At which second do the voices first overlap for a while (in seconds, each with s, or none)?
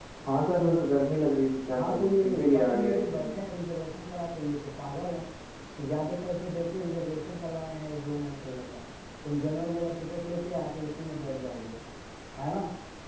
1.7 s